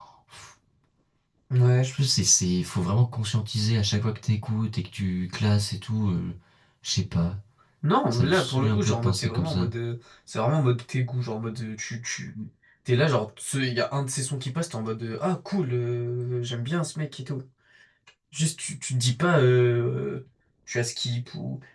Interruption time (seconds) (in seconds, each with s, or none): 8.1 s